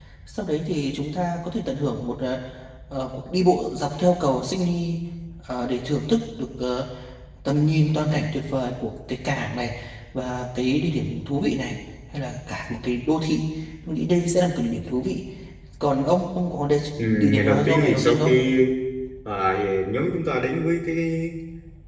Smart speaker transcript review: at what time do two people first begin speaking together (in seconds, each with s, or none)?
17.0 s